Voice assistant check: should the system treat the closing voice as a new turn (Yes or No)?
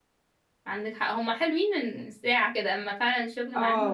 Yes